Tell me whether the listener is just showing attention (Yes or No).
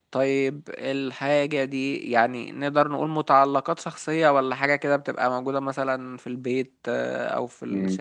No